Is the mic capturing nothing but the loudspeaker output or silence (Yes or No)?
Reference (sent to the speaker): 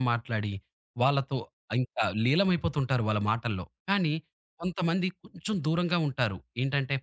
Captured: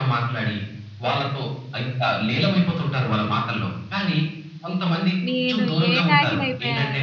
No